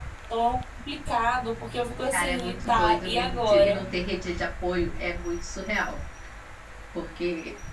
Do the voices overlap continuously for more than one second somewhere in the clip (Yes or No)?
Yes